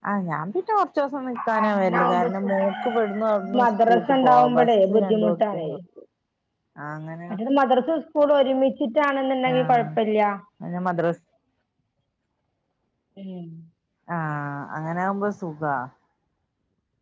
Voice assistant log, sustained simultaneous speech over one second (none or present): present